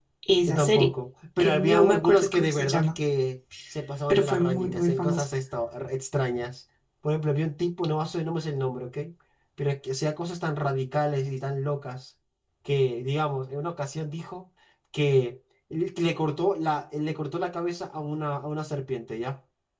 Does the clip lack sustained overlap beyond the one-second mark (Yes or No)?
No